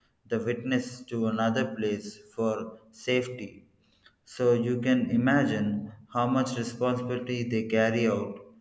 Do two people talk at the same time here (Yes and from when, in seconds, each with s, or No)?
No